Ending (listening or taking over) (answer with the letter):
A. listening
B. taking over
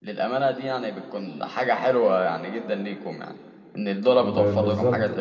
B